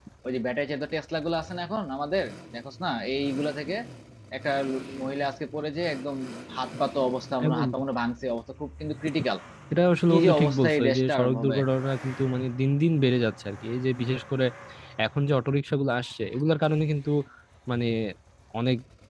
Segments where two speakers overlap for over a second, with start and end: 10.1-11.6

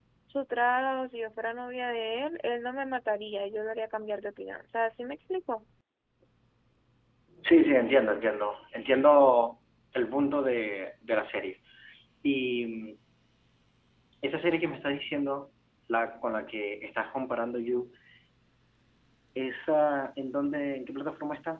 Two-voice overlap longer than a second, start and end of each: none

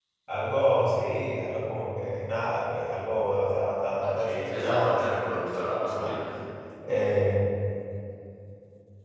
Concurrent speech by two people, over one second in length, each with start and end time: 4.1-6.2

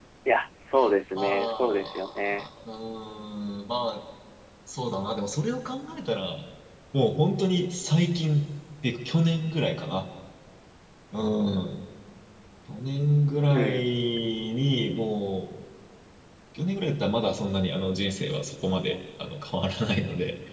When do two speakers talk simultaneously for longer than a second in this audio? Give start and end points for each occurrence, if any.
1.2-2.4

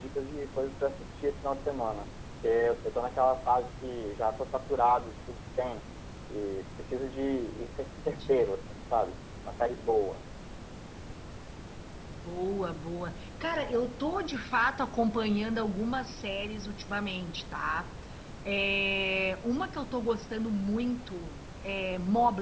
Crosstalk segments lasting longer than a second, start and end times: none

